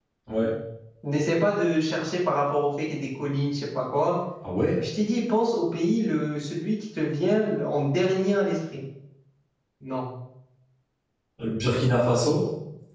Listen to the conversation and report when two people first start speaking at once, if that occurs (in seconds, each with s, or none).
none